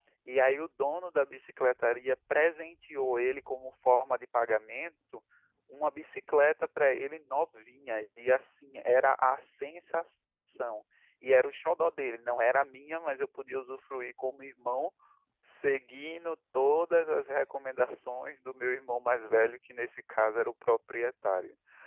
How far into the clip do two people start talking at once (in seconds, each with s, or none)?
none